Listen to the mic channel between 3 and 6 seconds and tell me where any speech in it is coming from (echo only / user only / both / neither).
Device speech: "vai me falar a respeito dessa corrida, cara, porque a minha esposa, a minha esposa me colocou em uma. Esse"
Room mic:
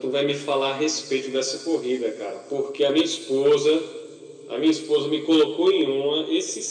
echo only